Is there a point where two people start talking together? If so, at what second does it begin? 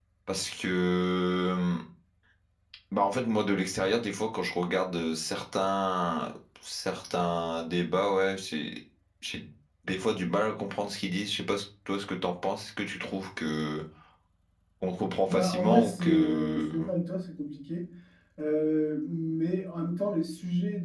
15.3 s

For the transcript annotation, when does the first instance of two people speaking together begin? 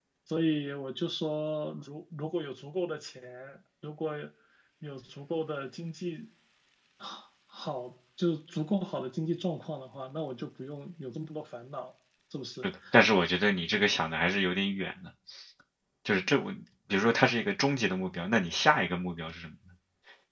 none

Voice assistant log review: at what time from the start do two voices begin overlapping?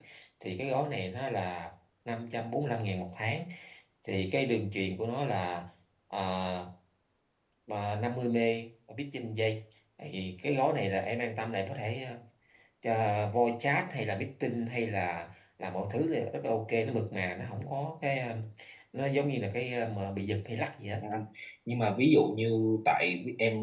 none

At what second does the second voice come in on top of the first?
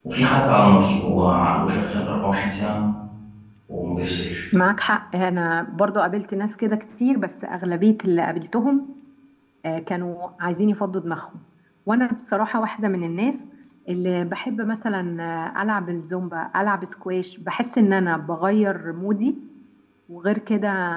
none

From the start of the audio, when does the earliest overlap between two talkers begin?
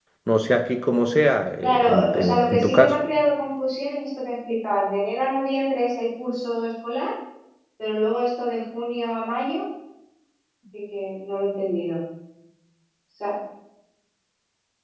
1.6 s

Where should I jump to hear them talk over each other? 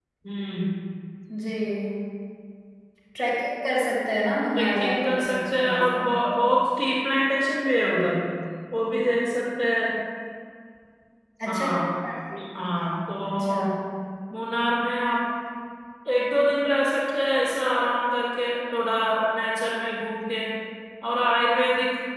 4.6 s

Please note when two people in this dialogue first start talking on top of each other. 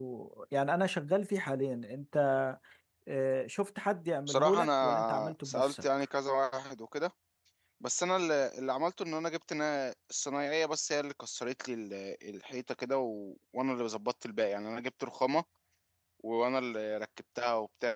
4.3 s

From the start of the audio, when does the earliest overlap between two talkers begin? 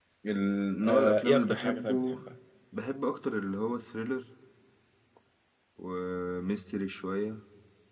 0.8 s

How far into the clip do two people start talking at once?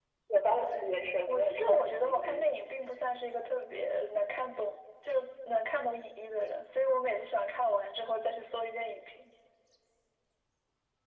0.6 s

